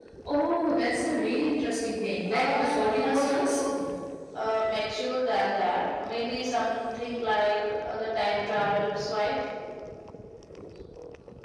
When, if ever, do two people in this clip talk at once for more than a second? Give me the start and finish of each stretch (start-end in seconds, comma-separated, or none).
2.3-3.6